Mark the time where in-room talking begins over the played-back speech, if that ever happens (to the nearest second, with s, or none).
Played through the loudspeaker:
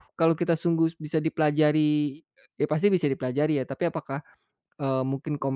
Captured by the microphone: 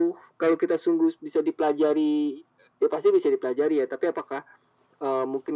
none